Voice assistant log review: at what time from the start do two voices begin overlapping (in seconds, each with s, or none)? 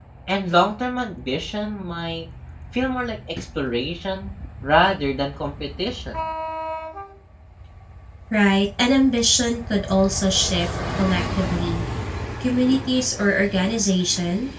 none